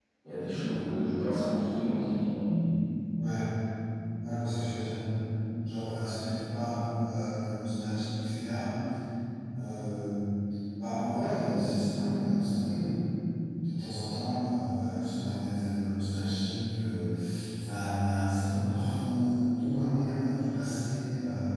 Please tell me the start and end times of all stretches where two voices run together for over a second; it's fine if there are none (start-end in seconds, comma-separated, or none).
none